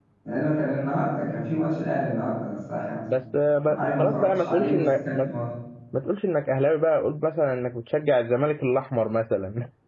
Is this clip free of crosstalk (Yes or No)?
No